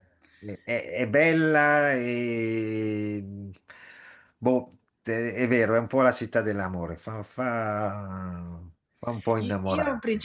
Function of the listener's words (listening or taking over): taking over